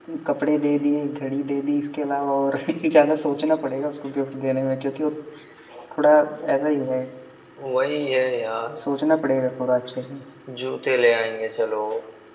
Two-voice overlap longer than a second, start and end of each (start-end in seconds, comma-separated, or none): none